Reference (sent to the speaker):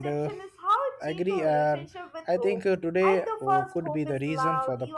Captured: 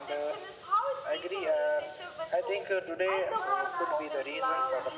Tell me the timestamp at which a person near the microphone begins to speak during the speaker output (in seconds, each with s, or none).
3.3 s